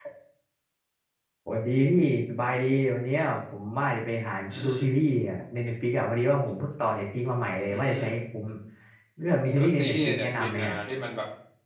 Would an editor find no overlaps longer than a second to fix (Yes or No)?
No